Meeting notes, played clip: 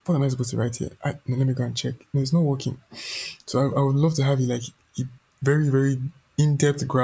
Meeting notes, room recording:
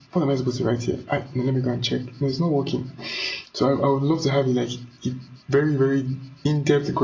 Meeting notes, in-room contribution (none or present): none